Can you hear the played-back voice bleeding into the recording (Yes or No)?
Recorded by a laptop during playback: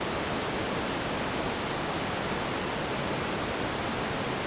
No